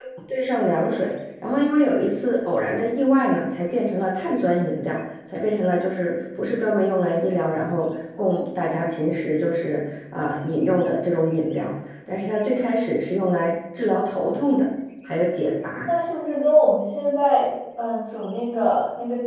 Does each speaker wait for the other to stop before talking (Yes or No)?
Yes